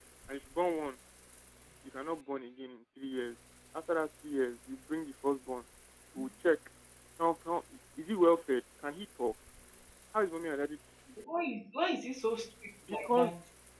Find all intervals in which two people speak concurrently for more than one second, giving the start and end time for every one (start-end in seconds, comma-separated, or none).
none